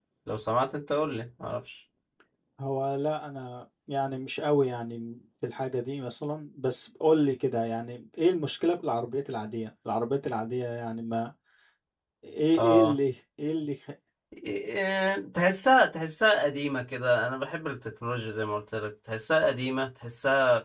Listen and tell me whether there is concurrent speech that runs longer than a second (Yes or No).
No